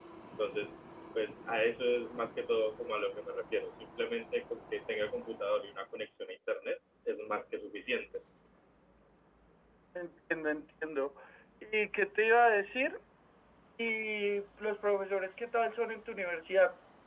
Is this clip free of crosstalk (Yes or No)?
Yes